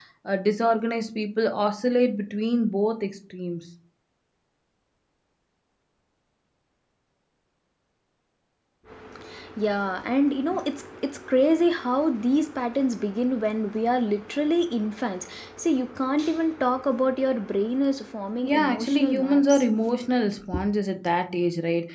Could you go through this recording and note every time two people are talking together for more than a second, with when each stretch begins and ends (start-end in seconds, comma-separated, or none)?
18.4-19.6